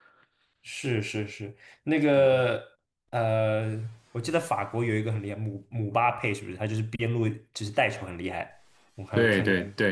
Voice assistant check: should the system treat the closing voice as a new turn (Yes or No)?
Yes